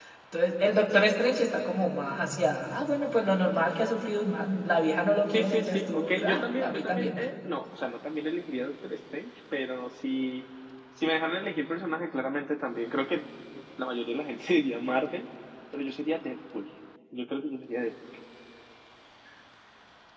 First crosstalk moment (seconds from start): 5.3 s

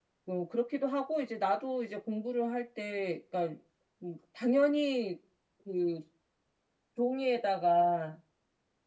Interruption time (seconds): none

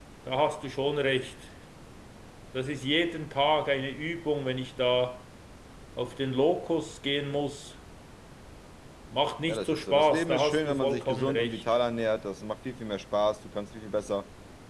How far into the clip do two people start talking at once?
9.5 s

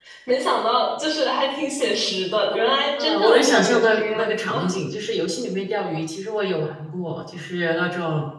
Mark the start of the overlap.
3.0 s

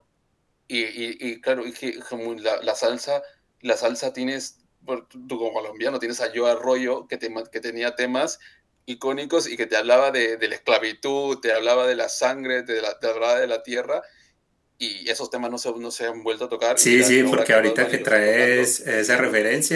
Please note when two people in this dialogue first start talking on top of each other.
16.8 s

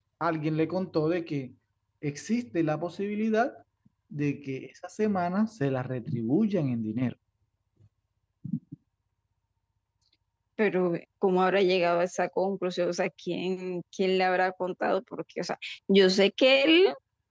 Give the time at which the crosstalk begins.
none

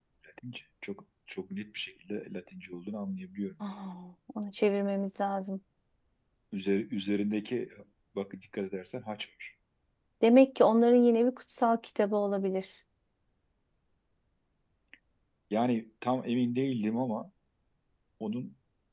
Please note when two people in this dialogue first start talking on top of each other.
none

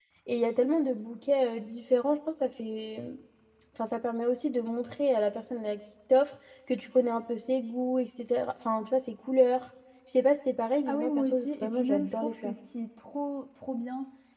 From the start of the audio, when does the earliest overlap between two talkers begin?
10.9 s

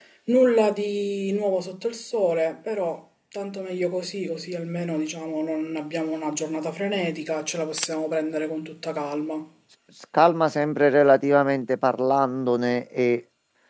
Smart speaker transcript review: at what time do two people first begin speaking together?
none

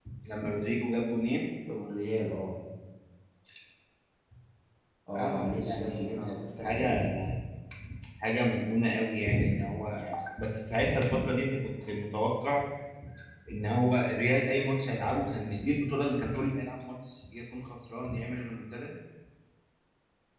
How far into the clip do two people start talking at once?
5.1 s

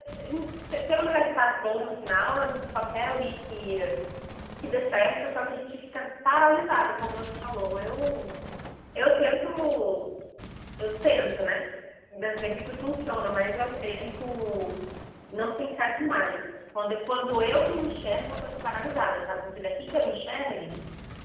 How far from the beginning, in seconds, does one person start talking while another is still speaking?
none

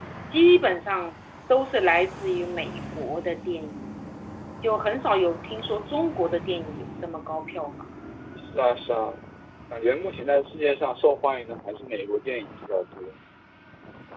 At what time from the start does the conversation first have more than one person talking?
none

